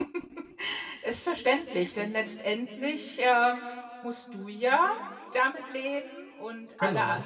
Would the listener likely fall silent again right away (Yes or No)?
Yes